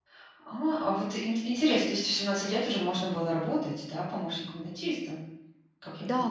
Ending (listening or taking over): taking over